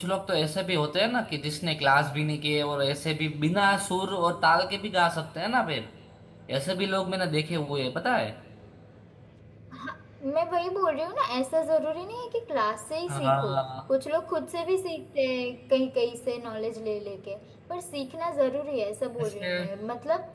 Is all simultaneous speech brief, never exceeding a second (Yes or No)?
Yes